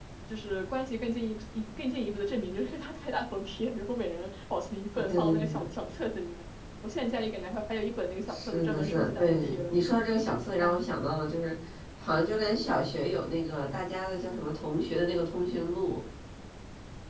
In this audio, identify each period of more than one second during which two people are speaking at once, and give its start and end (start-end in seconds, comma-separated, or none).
8.3-9.7